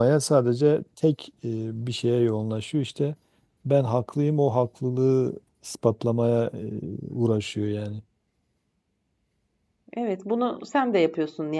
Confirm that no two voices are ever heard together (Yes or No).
Yes